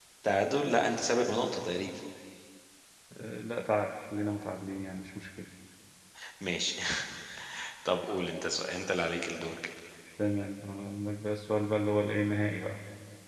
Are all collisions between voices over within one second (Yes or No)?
Yes